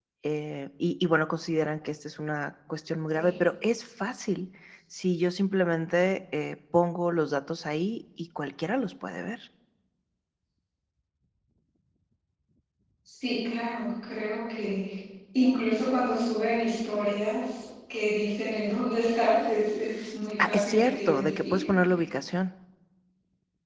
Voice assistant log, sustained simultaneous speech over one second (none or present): present